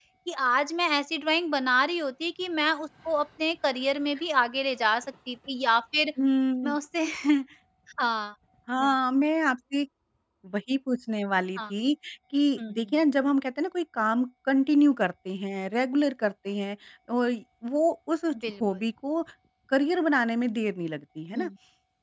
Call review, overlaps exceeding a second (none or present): none